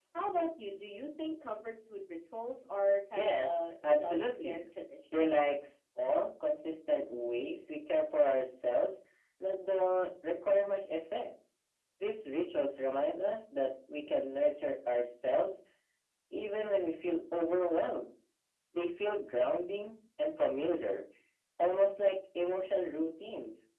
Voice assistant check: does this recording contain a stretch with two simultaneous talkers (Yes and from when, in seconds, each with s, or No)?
Yes, from 3.1 s